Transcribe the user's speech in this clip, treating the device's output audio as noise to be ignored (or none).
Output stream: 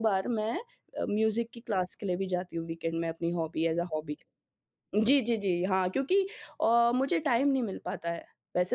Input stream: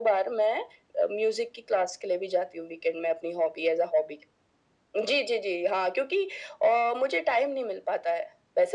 none